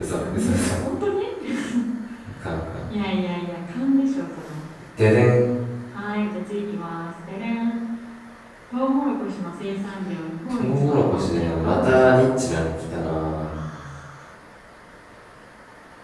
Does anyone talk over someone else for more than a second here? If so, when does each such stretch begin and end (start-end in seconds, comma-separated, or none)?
10.5-12.3